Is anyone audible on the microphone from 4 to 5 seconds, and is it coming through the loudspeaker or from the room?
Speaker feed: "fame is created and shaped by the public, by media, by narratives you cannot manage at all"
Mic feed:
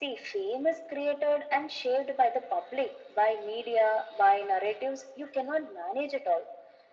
echo only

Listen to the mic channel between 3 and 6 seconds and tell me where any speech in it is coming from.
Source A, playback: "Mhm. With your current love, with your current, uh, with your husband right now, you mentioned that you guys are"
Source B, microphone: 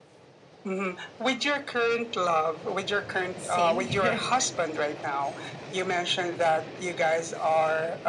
both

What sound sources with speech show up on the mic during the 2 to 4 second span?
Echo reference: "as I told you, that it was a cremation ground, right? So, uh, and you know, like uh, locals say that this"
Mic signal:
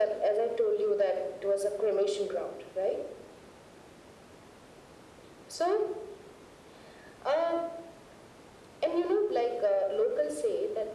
echo only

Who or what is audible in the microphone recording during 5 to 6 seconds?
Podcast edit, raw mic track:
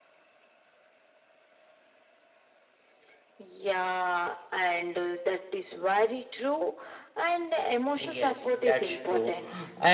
echo only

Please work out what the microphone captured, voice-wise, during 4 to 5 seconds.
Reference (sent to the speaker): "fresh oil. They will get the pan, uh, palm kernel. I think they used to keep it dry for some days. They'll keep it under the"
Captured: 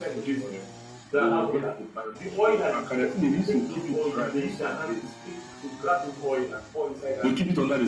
both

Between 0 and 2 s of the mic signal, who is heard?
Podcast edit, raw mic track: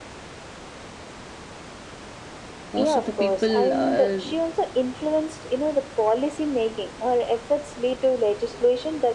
neither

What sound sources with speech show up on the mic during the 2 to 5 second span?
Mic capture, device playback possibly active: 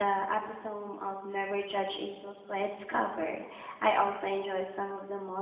user only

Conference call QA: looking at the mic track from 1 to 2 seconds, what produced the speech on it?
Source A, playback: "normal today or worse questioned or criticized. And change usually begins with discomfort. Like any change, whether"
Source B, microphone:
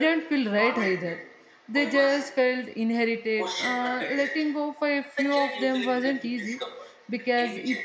both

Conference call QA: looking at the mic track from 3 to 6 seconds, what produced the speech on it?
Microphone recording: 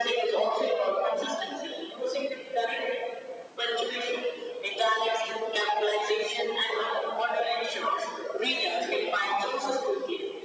echo only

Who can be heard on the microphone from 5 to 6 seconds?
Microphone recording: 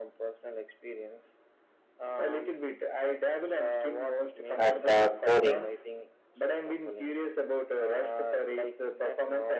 both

